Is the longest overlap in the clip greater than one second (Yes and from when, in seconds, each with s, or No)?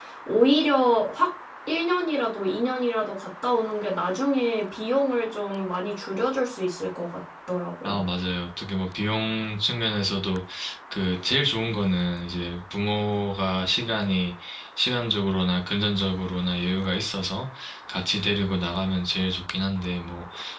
No